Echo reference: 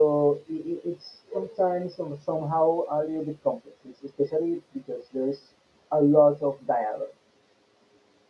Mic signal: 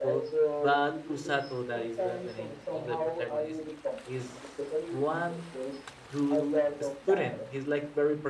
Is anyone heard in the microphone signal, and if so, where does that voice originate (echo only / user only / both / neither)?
both